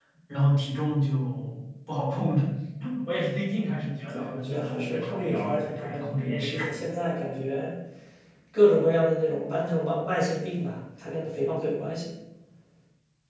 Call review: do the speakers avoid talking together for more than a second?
No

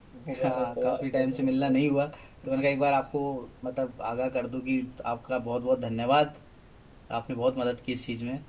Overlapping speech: Yes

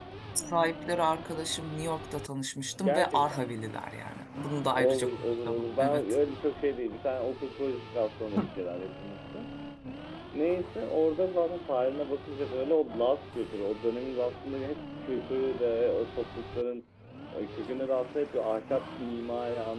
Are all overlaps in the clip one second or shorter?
No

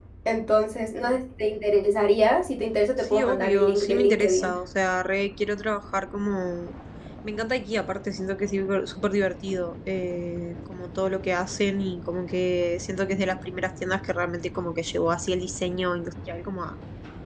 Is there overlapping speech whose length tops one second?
Yes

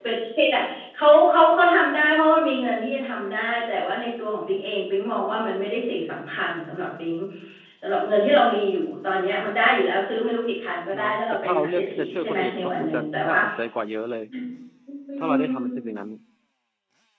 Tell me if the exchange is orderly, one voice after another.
No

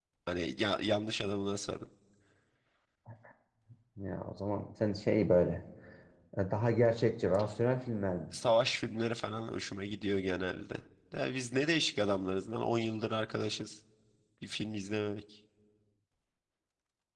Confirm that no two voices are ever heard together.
Yes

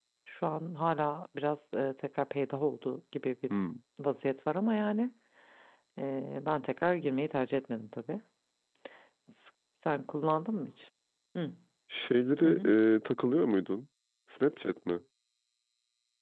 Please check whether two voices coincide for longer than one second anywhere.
No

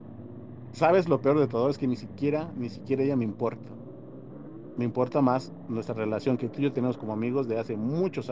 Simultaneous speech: No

